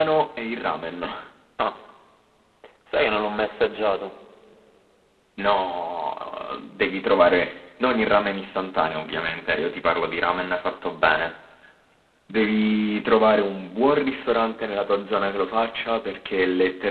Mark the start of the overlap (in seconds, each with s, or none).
none